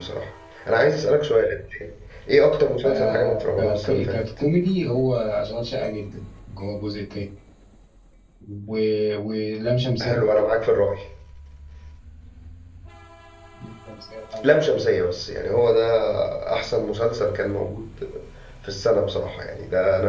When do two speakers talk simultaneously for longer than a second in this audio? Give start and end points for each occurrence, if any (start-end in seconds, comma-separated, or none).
2.8-4.2